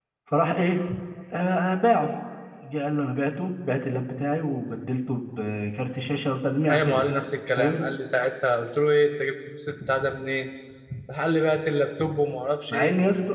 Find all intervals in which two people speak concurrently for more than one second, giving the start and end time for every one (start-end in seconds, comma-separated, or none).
none